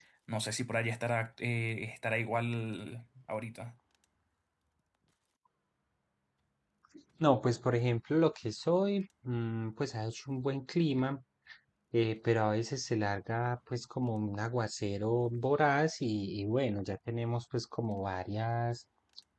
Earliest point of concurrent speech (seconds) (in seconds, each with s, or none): none